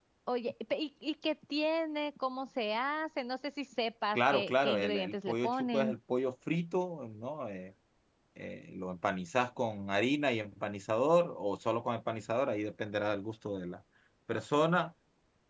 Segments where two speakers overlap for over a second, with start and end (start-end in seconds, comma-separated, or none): 4.1-6.0